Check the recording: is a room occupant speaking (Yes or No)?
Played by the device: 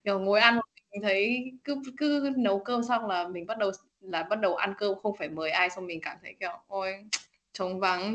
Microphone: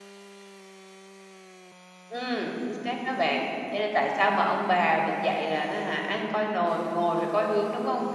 Yes